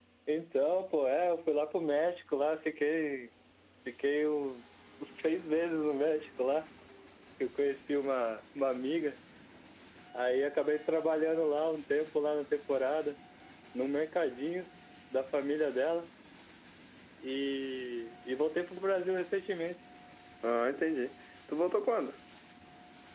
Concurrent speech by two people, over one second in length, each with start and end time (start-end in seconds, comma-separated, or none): none